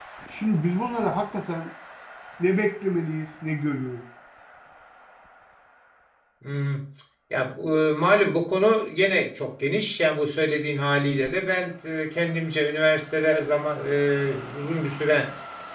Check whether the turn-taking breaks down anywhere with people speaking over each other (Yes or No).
No